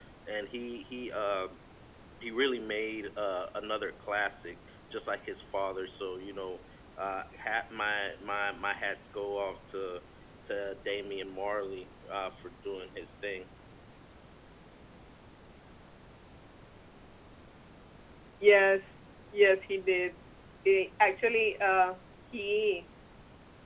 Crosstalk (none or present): none